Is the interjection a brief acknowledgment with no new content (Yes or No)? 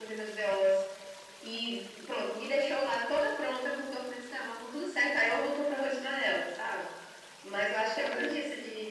Yes